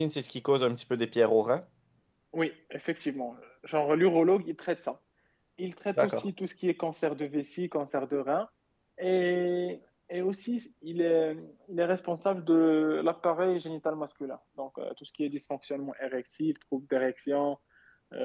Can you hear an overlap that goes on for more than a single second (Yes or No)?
No